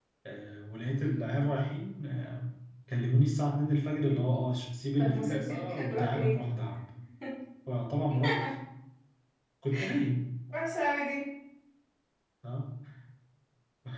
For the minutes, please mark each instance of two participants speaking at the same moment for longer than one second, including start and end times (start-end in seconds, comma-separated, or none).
5.0-6.4